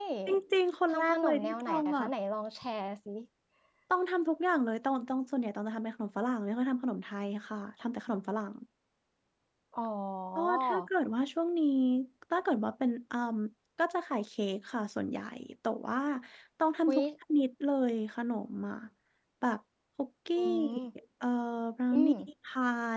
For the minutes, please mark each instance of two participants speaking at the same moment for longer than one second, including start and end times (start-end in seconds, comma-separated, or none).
0.9-2.1